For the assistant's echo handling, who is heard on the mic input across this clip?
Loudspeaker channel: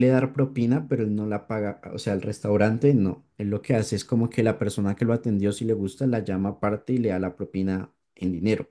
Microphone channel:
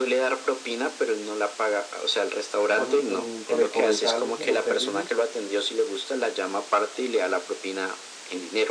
both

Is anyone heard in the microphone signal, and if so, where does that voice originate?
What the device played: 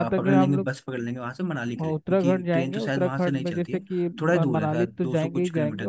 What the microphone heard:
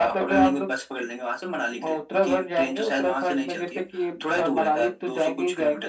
echo only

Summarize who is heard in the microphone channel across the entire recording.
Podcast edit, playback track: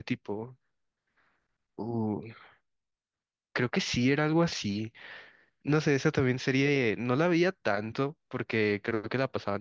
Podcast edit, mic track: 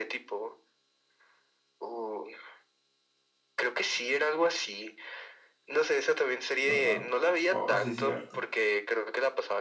both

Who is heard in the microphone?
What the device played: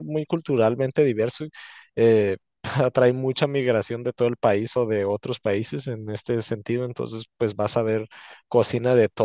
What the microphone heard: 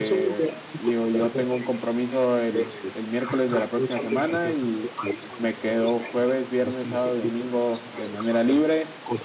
both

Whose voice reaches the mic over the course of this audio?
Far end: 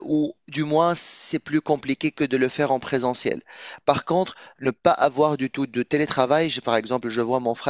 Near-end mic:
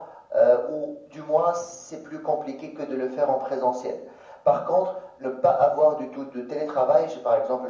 echo only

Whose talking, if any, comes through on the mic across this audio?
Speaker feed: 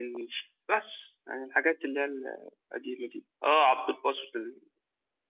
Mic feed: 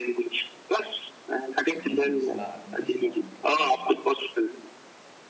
both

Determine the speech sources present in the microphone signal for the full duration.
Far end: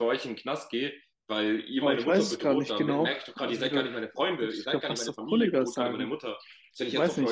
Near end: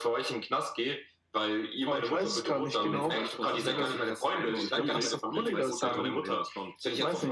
both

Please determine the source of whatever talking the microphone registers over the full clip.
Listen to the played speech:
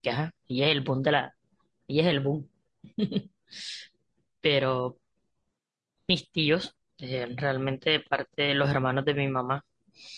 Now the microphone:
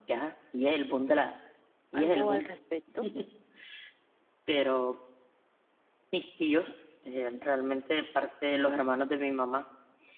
both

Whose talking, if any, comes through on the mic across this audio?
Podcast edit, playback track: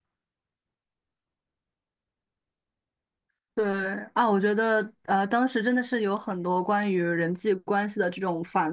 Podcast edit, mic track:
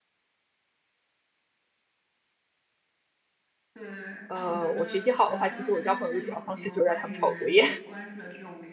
both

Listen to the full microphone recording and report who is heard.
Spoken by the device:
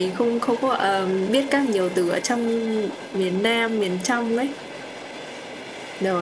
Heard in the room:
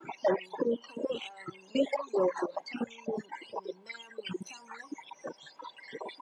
echo only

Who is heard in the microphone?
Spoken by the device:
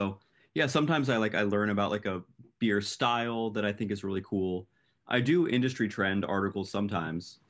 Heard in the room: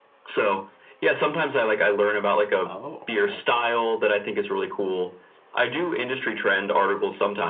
both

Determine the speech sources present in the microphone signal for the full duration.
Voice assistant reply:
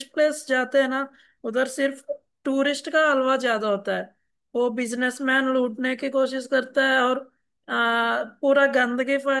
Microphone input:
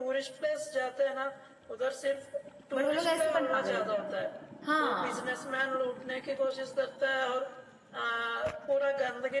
both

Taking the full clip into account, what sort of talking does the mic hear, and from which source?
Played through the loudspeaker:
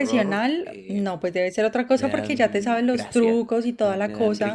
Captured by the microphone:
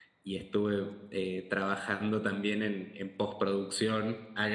user only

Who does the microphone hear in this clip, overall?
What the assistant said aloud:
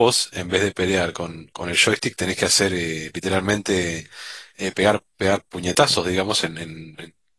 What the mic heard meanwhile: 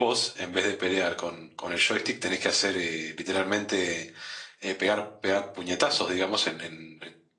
echo only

